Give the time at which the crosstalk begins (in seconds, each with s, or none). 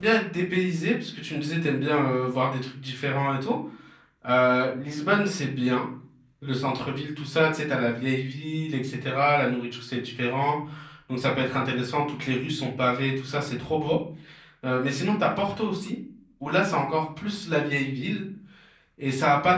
none